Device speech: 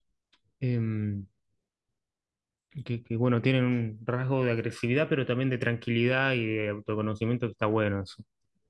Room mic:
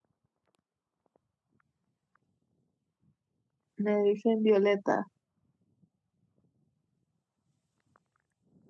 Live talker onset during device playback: 3.8 s

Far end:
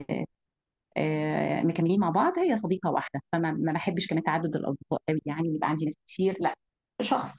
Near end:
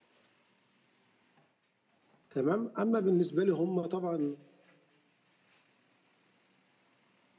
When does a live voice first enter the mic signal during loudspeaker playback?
2.3 s

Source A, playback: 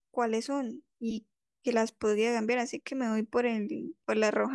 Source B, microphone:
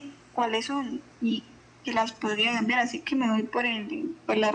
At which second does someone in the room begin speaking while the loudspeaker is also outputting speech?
none

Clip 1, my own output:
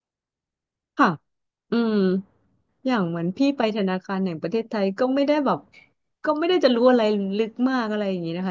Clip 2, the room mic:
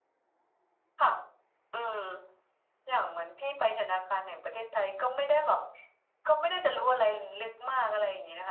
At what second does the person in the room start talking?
none

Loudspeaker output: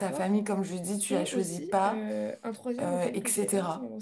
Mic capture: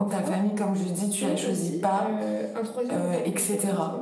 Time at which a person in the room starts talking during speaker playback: none

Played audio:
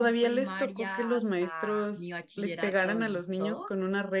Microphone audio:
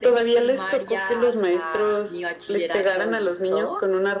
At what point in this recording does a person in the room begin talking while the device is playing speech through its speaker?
none

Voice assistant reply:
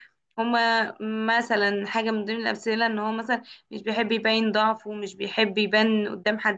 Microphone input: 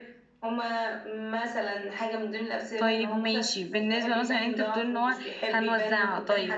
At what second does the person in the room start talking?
2.8 s

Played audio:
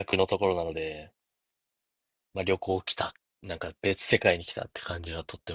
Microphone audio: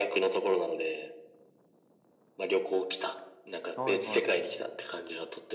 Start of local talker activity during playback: 3.7 s

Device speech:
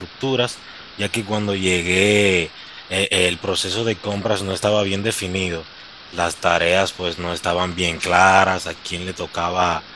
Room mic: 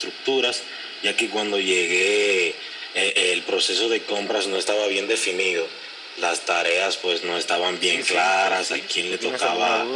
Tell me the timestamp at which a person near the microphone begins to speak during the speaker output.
7.8 s

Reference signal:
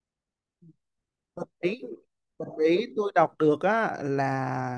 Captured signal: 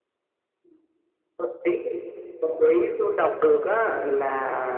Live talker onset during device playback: none

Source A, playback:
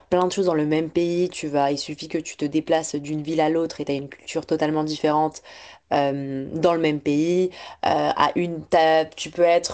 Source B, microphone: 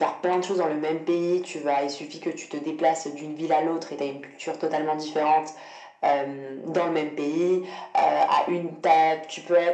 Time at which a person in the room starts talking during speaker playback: none

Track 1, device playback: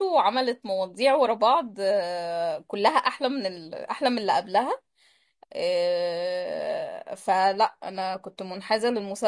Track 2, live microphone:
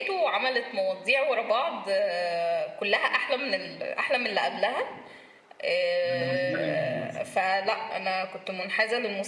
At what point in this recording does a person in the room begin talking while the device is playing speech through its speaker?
6.0 s

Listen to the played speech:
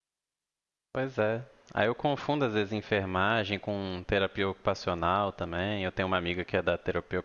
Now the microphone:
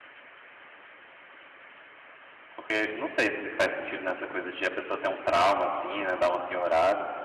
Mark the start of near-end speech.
2.6 s

